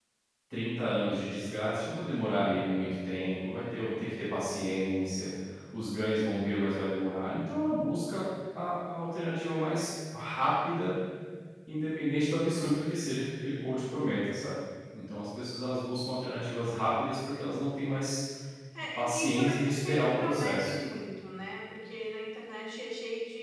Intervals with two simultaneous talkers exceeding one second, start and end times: 18.9-20.7

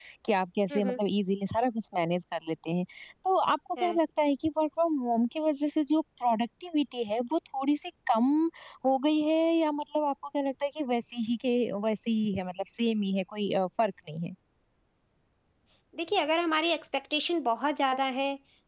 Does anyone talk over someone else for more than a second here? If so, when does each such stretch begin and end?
none

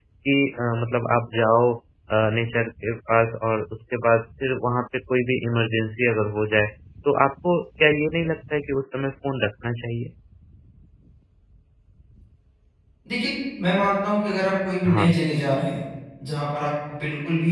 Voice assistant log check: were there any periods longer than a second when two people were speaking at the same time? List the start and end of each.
none

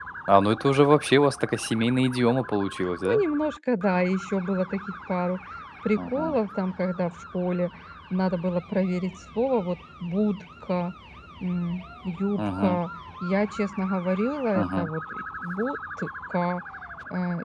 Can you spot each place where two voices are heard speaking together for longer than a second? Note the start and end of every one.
none

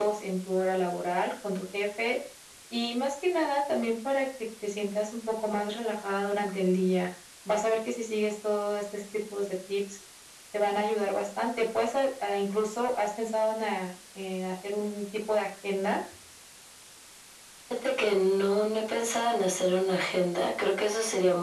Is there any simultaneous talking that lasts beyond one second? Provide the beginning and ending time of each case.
none

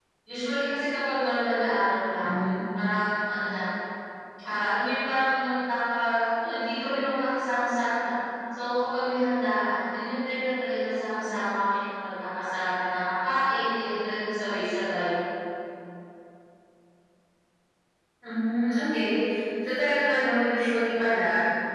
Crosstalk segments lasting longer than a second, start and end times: none

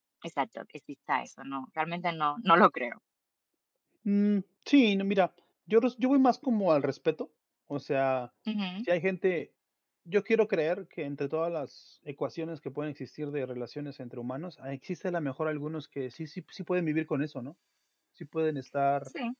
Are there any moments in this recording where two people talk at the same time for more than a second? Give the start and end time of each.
none

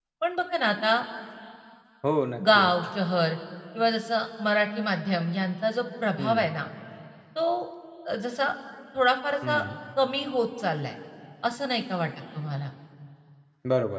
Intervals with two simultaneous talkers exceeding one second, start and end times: none

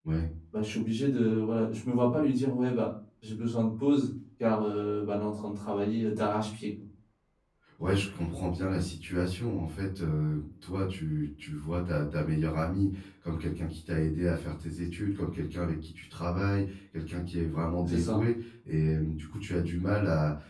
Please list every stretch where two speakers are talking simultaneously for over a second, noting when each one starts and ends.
none

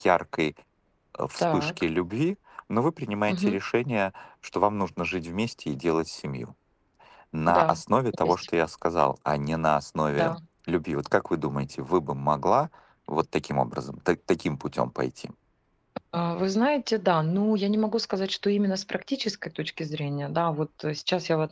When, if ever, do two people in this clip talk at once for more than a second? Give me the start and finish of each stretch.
none

